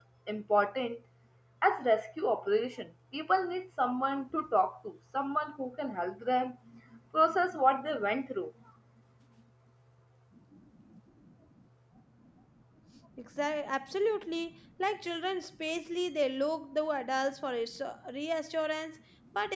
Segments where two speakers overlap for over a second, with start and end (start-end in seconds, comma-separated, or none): none